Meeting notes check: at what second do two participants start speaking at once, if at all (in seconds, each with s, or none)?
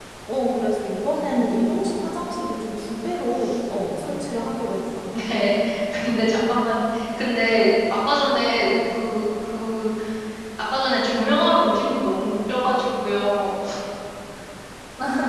none